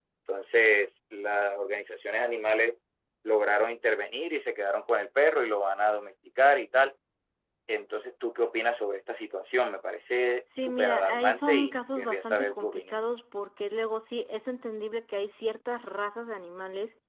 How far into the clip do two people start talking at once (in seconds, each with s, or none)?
10.5 s